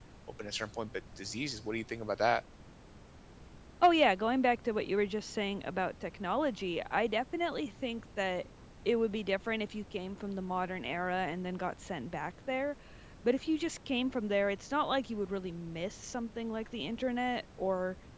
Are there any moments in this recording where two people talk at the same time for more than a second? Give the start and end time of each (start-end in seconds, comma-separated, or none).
none